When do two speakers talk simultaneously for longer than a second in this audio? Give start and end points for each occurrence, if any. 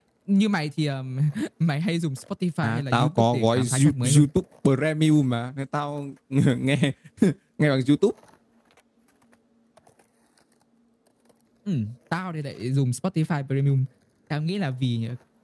2.6-4.3

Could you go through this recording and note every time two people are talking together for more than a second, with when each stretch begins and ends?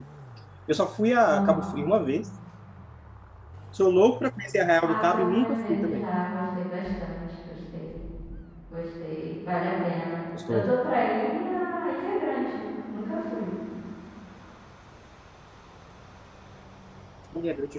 4.8-6.1

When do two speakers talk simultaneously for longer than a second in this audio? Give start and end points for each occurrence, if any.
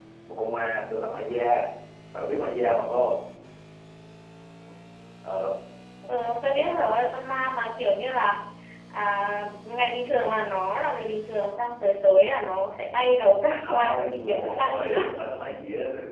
13.7-15.2

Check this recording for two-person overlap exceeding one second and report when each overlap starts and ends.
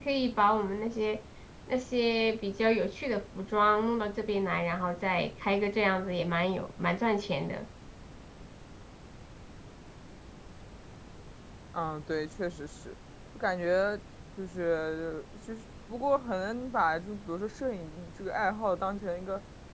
none

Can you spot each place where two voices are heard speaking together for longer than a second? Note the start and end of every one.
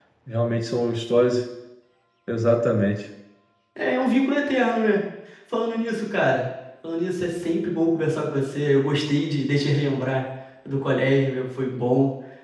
none

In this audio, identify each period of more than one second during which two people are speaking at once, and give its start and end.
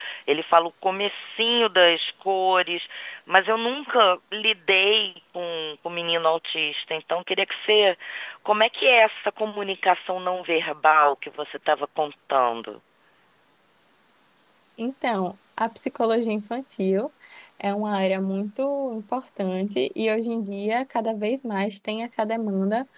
none

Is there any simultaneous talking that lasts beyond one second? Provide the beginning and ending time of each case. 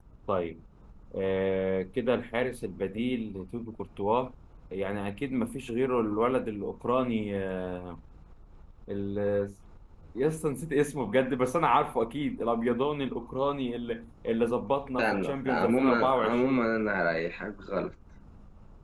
15.0-16.7

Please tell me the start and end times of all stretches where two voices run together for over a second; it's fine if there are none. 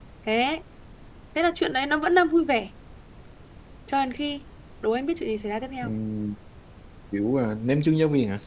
none

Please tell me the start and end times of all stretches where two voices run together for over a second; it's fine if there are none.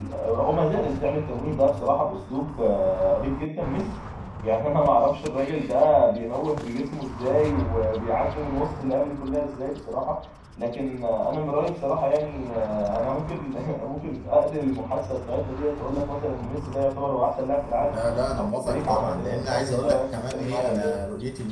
18.4-21.0

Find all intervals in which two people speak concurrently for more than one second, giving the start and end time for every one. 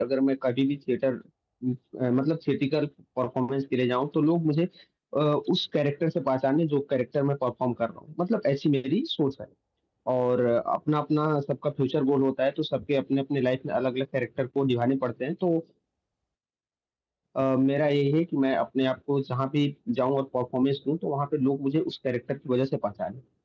none

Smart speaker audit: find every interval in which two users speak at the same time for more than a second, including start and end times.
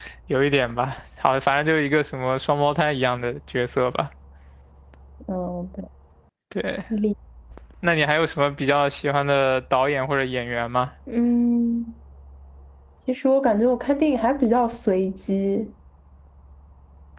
none

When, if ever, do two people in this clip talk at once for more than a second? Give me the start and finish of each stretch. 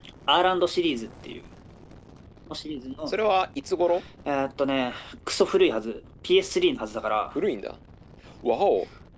none

